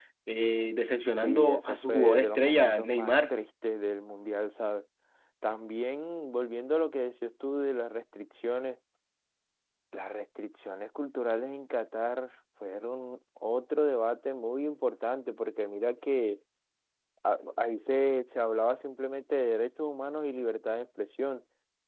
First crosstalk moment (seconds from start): 1 s

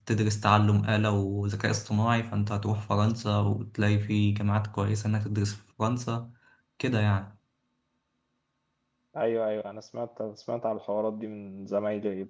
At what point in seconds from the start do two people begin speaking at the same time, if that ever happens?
none

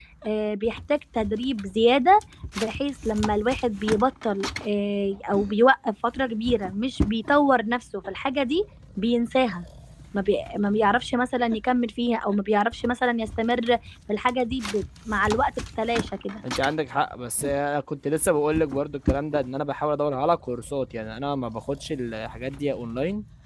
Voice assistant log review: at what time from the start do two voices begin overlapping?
none

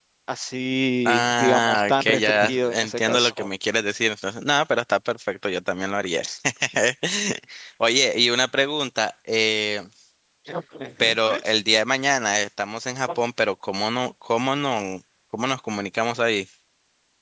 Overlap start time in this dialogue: 1 s

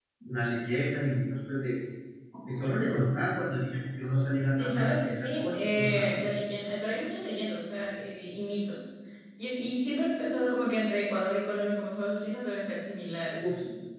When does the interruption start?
5 s

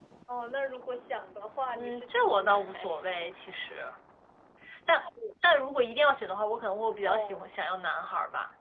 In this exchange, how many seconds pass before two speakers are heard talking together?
2 s

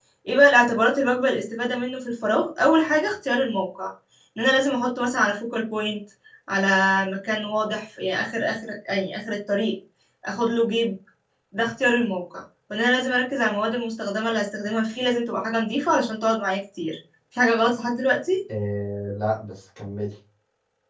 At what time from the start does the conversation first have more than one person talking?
none

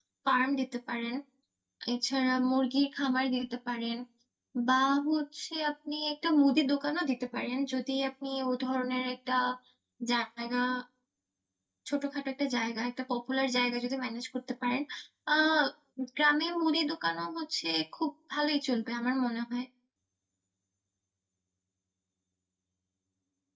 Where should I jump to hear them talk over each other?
none

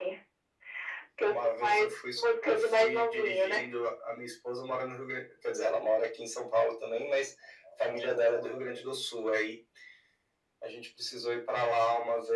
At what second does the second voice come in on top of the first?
1 s

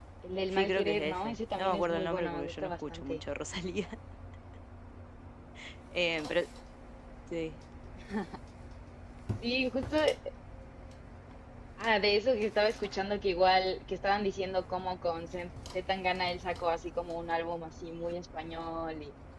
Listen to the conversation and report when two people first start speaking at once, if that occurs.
1 s

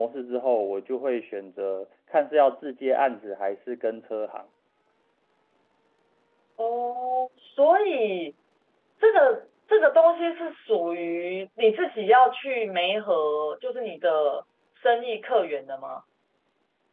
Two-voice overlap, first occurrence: none

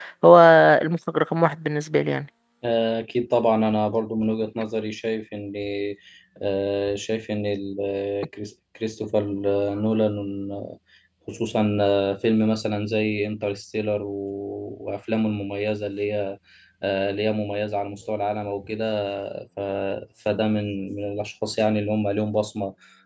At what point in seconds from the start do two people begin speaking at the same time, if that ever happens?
none

